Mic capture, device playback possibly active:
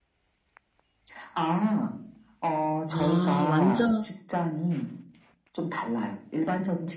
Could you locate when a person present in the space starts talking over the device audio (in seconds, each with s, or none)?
2.9 s